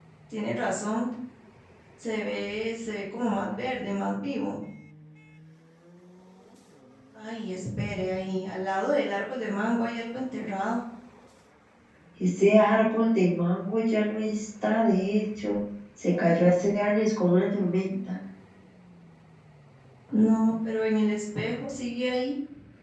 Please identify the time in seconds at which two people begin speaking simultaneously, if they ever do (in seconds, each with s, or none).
none